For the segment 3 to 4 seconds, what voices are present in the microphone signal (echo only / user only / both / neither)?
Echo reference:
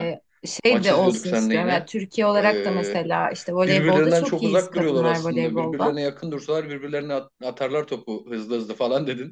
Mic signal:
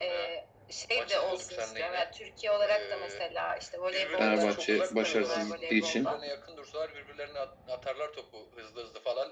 echo only